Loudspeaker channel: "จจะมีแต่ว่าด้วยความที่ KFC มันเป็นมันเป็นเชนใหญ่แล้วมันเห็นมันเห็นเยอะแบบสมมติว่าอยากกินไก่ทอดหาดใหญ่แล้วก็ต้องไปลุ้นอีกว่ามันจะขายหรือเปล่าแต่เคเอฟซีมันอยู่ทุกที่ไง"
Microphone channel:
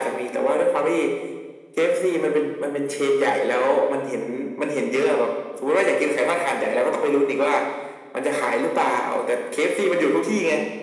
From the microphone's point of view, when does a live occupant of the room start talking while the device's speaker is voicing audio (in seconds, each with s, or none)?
none